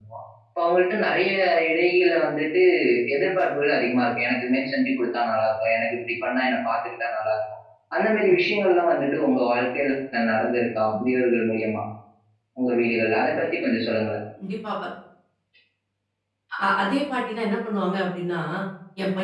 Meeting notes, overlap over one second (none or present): none